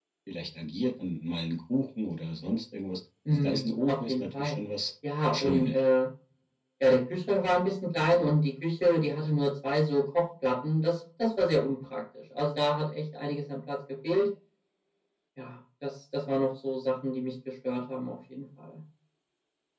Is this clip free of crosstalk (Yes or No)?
No